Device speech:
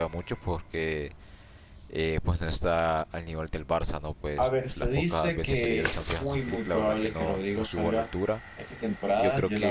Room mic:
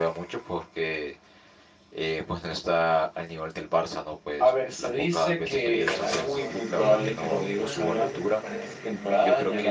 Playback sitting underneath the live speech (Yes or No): No